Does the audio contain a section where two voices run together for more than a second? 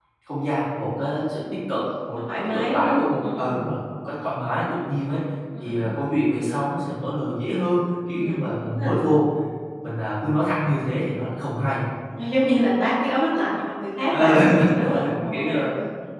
Yes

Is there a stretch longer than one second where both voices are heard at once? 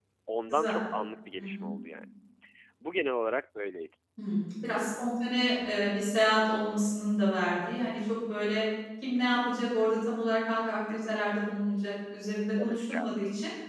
No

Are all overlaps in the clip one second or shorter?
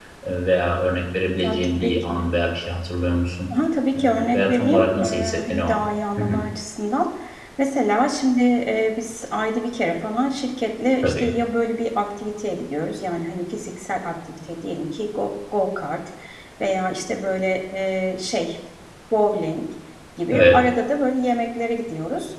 No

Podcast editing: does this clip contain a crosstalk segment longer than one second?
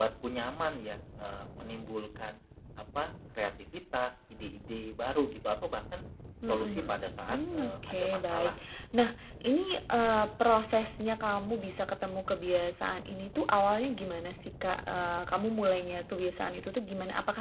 Yes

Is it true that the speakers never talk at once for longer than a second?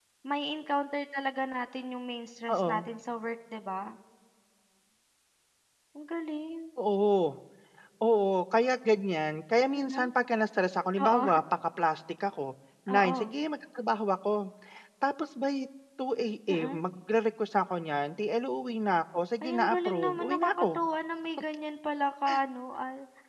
No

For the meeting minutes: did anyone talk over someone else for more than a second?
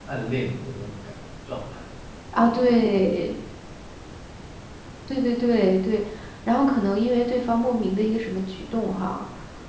No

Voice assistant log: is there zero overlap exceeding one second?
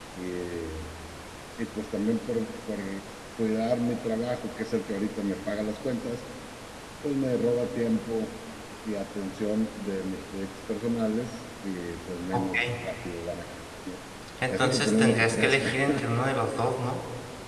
No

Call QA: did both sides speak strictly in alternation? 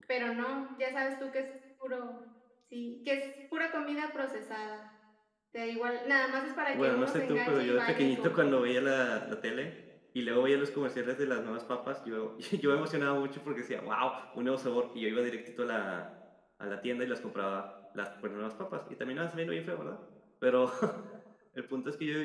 No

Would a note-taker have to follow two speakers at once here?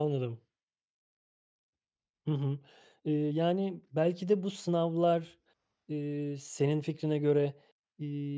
No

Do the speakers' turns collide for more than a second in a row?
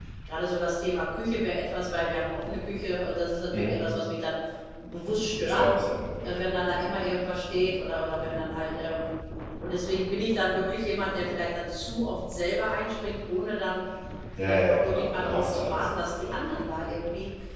Yes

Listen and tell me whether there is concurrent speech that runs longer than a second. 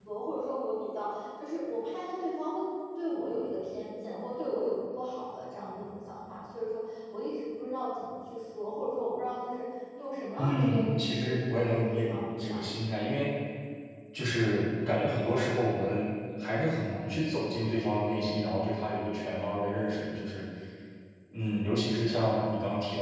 Yes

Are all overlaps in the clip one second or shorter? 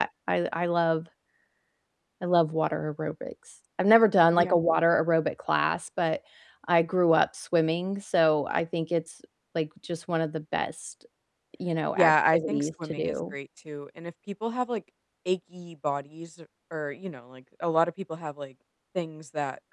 No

